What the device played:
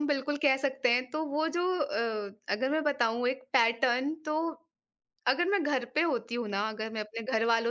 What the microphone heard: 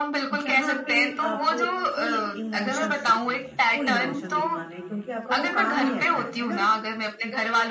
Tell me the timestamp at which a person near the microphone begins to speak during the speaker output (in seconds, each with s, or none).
0.3 s